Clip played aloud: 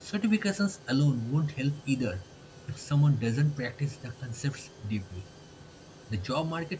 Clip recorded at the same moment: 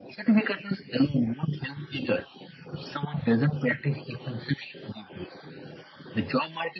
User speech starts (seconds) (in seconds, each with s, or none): none